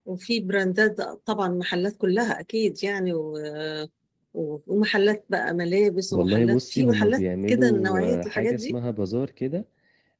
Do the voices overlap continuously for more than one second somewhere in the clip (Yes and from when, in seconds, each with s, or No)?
Yes, from 6.1 s